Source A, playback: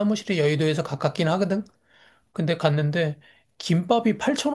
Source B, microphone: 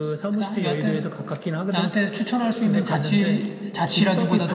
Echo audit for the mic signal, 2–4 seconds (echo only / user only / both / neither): both